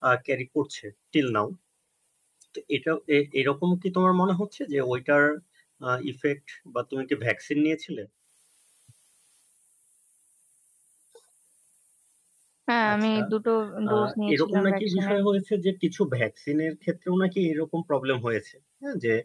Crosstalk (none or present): present